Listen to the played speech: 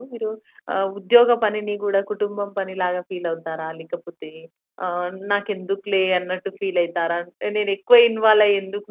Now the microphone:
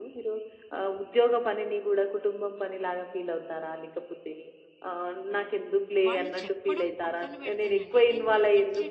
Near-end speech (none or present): present